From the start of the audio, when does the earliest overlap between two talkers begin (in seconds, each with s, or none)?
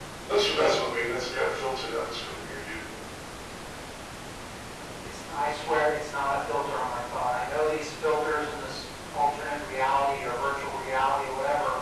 none